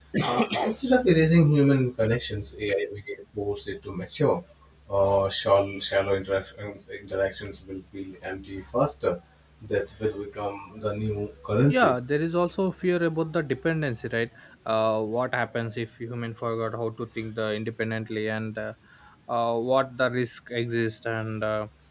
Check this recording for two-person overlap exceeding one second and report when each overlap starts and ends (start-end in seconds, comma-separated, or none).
none